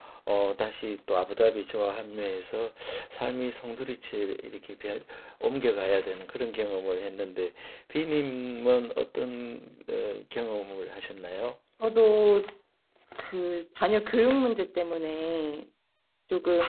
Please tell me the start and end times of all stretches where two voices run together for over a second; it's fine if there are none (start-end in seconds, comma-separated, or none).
none